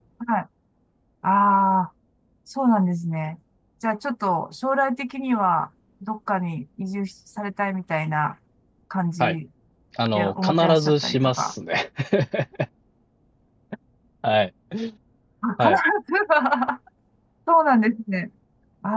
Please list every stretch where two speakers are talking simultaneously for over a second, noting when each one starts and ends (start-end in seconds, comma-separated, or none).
10.1-11.5